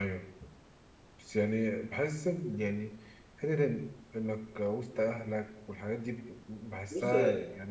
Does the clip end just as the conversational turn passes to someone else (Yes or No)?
Yes